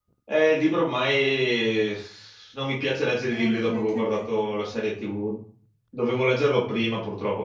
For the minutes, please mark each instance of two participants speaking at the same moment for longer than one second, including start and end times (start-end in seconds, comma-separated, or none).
3.3-5.0